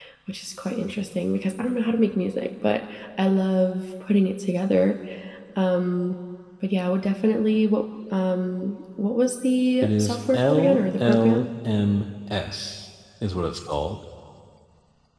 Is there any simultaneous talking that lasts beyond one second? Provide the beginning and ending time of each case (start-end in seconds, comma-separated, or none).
9.8-11.5